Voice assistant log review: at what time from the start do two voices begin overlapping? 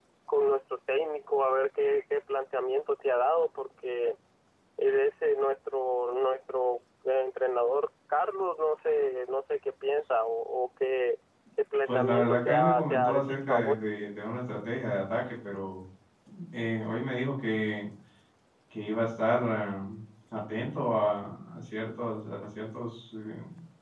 11.9 s

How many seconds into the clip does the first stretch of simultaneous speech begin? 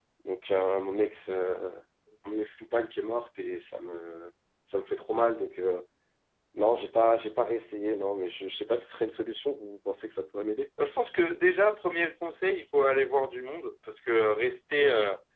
none

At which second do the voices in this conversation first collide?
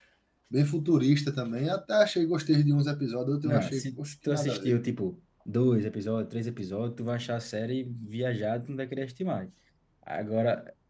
3.5 s

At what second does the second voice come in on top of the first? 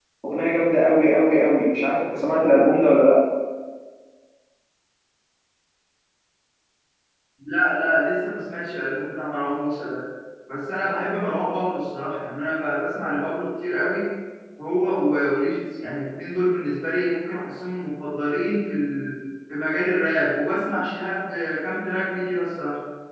none

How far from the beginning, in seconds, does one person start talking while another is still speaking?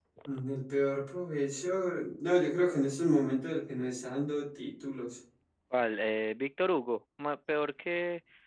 none

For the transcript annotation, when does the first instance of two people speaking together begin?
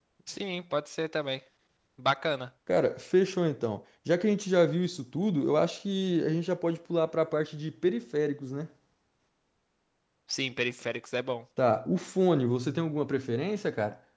none

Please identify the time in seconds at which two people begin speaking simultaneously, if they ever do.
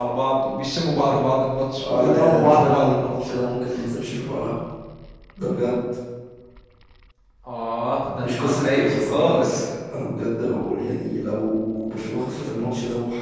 1.8 s

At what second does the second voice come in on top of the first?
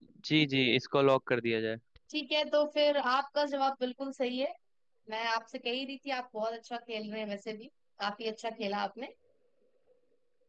none

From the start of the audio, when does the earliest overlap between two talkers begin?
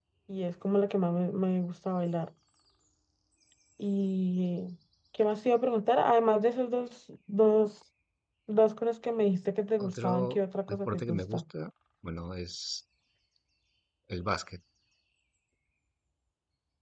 9.8 s

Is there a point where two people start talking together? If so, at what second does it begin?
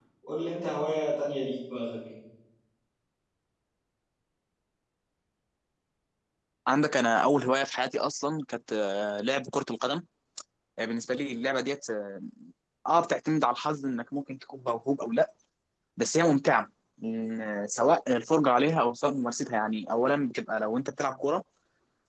none

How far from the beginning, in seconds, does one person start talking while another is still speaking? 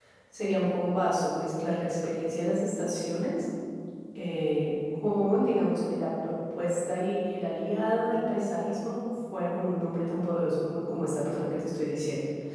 none

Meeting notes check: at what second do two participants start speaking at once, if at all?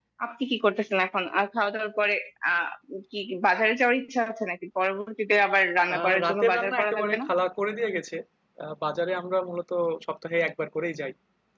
5.9 s

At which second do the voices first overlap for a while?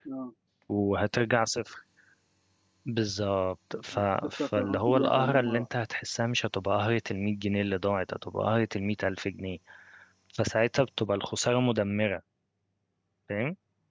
4.4 s

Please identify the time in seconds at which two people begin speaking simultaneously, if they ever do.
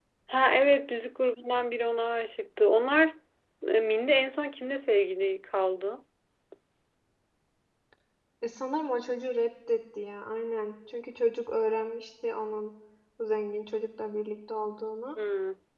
none

